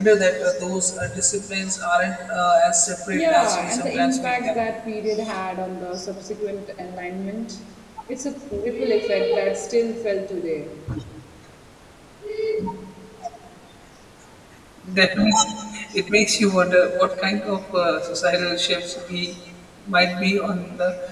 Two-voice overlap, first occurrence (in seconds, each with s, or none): 3.1 s